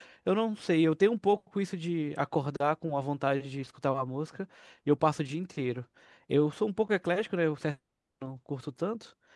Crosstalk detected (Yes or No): No